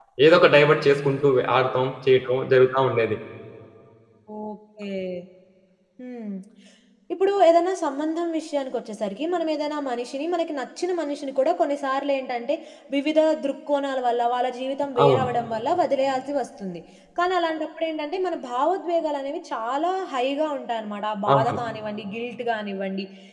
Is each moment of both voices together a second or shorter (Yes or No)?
Yes